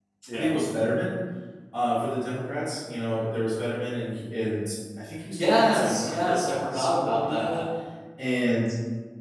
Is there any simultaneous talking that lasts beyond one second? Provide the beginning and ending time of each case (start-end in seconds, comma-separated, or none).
5.4-7.6